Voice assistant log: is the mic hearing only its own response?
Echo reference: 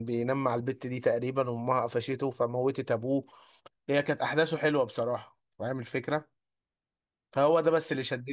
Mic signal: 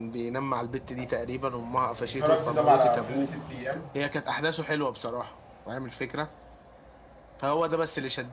No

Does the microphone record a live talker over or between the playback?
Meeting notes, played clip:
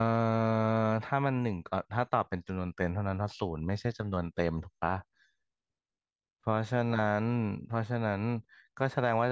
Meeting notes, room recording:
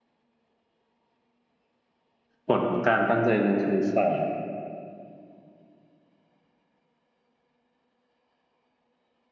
Yes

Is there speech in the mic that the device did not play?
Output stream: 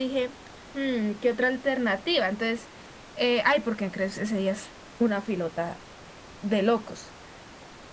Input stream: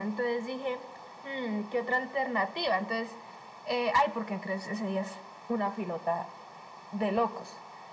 No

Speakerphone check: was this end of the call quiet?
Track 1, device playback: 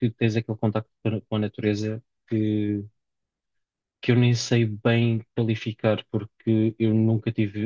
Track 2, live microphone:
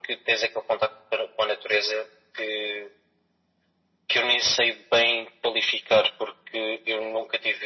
Yes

